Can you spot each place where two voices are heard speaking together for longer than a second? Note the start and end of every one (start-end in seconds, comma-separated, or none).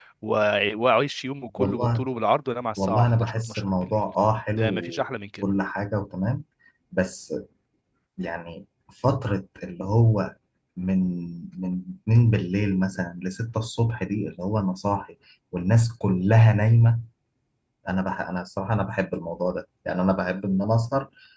2.8-4.0